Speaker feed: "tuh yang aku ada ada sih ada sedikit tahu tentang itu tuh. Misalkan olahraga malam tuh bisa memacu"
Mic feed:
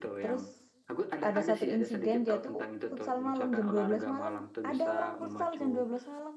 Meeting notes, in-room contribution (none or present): present